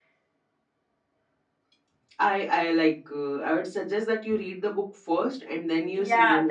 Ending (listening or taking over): taking over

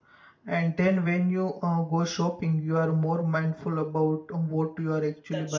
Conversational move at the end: taking over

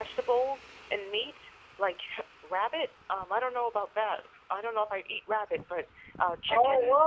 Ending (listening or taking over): taking over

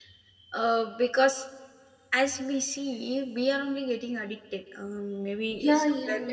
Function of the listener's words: taking over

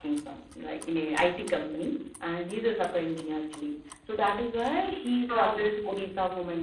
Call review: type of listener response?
listening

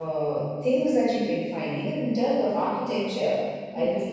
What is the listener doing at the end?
listening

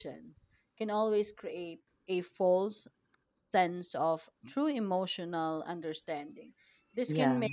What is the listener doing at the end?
listening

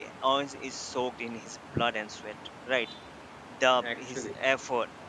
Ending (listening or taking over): listening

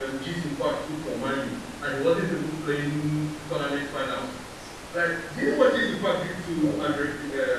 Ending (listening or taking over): listening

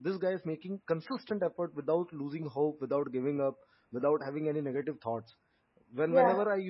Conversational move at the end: listening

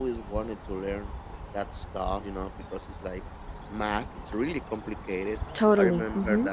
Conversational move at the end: listening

